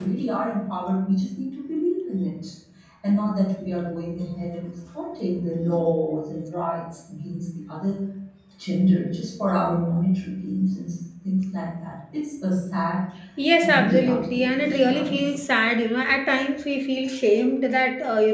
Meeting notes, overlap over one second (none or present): present